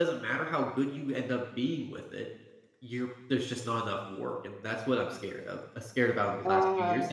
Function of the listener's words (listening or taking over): listening